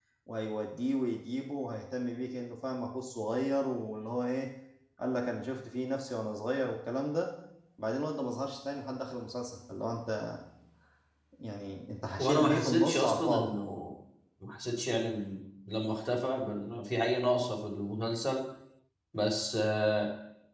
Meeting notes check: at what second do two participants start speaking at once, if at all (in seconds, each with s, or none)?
12.2 s